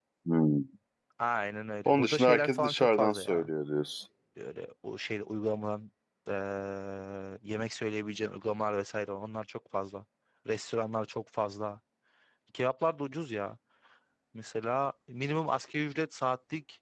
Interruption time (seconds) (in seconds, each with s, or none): 1.9 s